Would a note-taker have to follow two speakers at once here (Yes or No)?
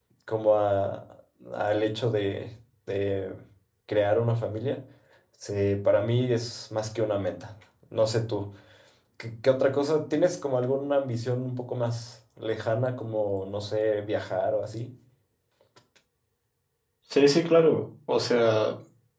No